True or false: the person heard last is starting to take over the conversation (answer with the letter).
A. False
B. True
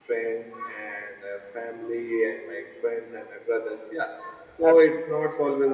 A